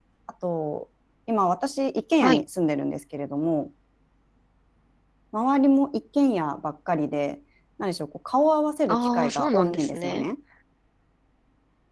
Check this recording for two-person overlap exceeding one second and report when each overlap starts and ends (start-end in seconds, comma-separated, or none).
8.9-10.2